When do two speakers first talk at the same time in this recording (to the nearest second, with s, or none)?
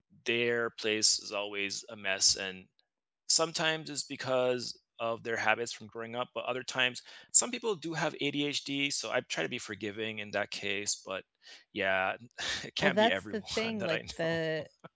13 s